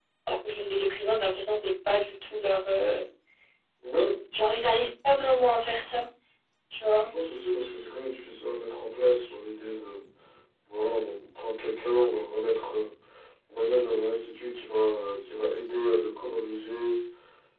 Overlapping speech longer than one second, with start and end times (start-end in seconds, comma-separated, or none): none